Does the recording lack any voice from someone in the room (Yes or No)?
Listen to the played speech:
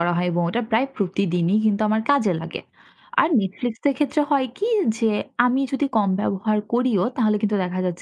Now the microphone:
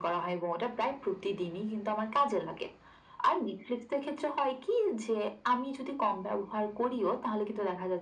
Yes